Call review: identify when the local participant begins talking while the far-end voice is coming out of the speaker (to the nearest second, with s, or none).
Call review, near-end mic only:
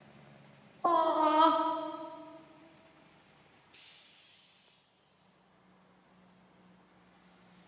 1 s